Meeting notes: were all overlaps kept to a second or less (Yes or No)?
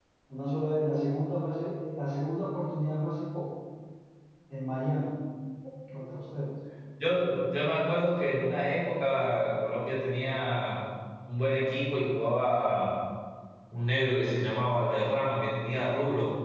Yes